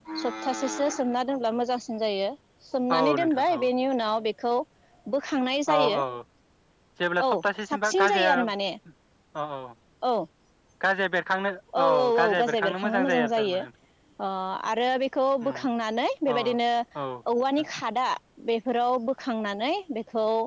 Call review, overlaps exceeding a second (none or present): present